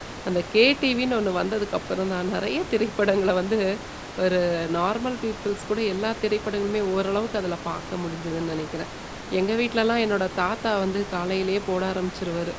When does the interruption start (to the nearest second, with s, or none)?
none